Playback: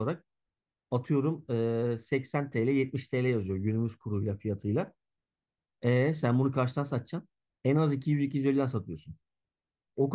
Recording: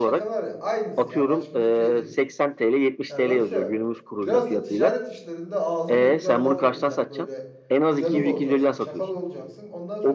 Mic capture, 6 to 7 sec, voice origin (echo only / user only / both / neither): both